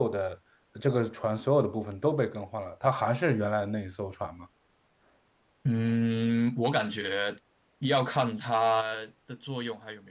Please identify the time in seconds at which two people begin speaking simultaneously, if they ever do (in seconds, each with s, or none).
none